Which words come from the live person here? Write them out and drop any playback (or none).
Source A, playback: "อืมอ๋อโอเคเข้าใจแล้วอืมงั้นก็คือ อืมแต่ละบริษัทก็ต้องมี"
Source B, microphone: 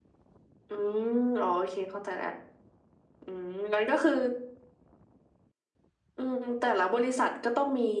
none